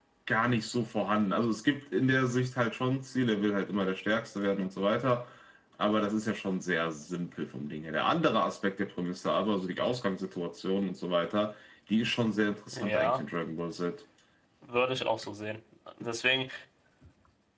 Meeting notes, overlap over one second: none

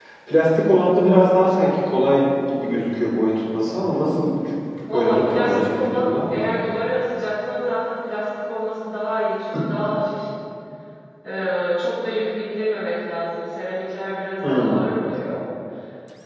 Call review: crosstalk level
present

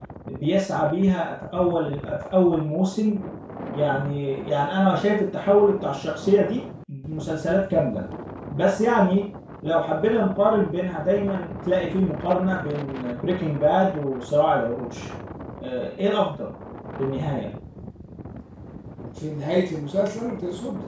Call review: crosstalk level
none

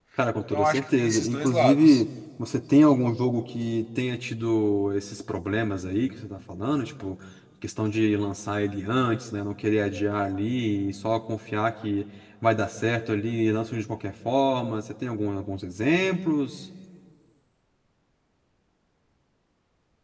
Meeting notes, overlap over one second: present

